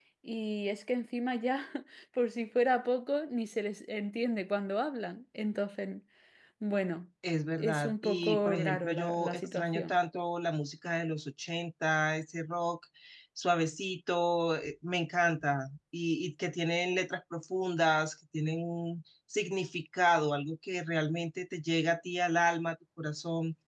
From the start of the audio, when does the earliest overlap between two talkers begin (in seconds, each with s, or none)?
7.6 s